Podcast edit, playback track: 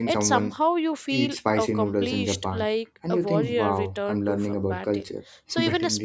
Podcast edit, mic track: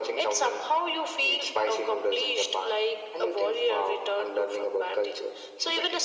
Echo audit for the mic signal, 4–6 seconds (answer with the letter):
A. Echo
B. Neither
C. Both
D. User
A